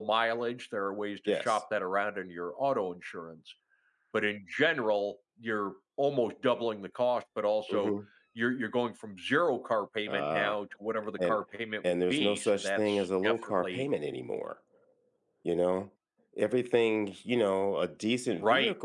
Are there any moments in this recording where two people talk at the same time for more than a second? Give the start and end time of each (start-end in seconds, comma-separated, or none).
11.8-13.8